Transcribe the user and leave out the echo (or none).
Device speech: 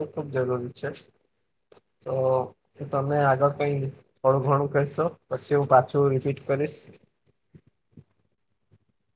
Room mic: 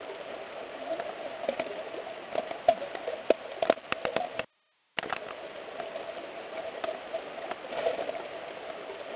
none